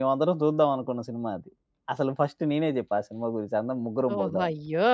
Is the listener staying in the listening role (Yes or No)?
No